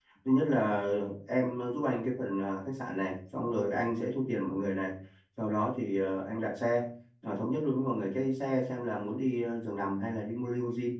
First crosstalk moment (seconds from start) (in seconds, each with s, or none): none